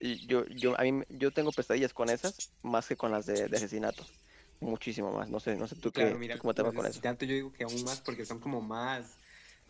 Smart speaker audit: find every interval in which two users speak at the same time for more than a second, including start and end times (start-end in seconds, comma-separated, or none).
5.8-7.0